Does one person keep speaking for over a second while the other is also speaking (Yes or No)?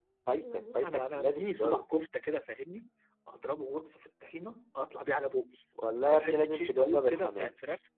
Yes